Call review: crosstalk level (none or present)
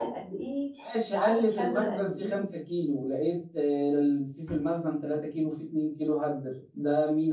present